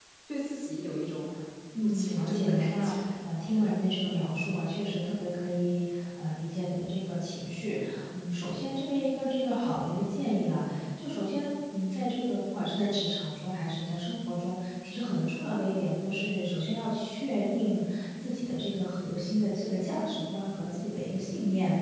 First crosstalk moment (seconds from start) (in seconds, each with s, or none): 1.8 s